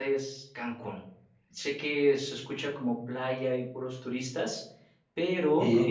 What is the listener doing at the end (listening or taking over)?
listening